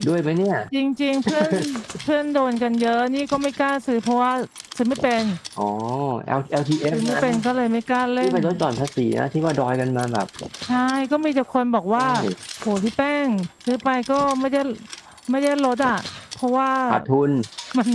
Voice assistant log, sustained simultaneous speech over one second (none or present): none